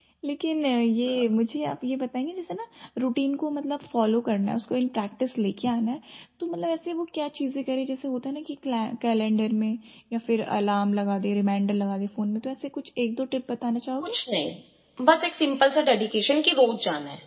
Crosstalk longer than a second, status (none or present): none